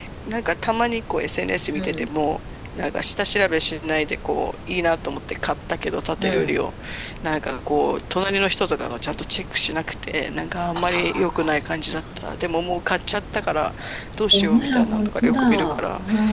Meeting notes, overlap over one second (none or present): present